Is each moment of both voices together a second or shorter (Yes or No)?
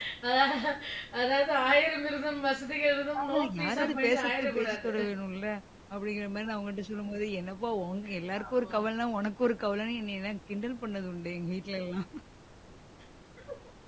No